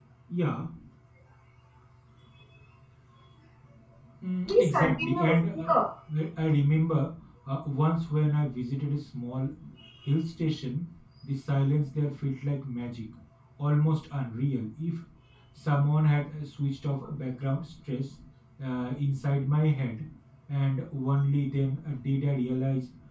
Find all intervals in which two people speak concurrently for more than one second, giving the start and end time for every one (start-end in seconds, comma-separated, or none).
4.5-5.7